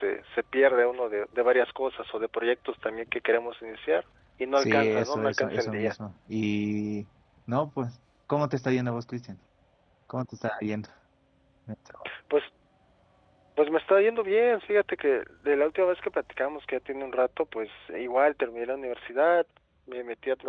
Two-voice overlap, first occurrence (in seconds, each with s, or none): 4.5 s